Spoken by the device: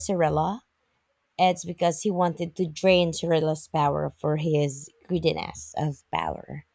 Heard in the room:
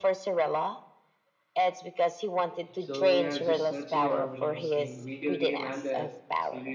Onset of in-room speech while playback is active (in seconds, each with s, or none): 2.8 s